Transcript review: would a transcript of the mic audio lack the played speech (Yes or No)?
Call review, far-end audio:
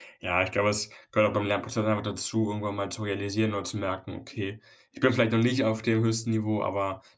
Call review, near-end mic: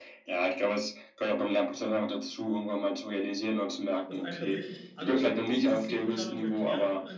No